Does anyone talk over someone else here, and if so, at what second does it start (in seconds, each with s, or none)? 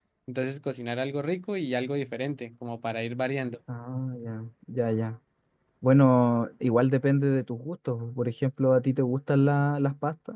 none